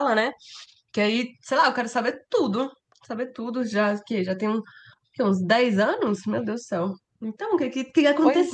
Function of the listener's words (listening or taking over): taking over